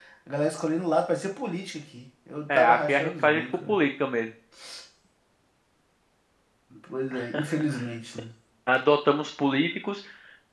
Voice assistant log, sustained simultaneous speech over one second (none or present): present